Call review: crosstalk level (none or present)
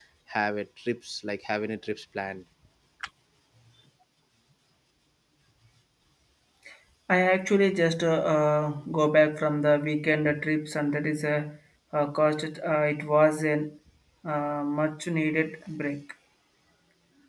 none